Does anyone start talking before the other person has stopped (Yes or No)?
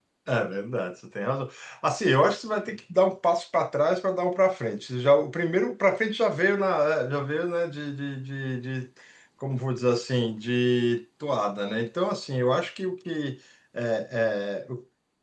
No